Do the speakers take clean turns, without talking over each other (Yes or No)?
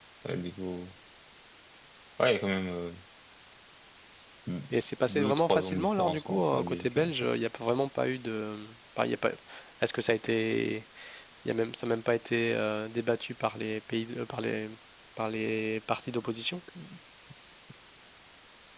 No